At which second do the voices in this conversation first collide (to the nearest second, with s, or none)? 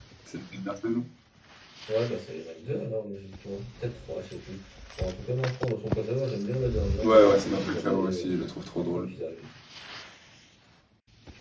7 s